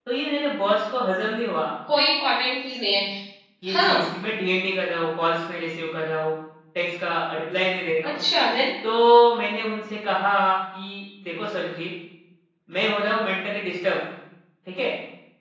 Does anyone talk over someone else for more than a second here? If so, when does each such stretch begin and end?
none

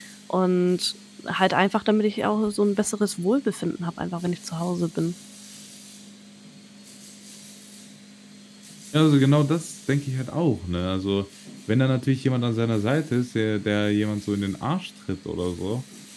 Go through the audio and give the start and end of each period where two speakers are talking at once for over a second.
none

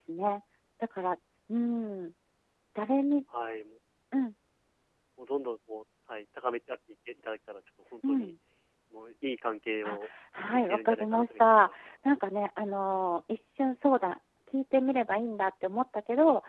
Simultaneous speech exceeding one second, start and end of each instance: 10.5-11.8

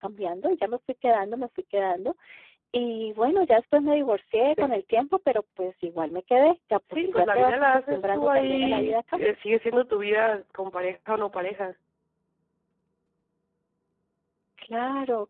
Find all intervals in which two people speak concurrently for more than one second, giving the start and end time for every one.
7.1-8.9

